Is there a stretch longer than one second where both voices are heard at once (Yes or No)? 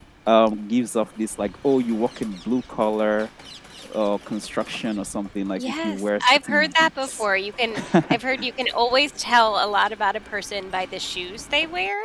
Yes